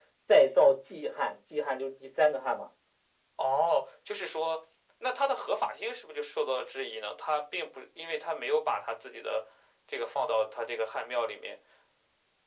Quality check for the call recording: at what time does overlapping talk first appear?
none

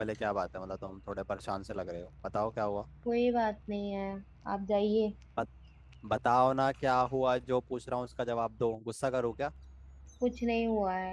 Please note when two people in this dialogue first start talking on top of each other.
none

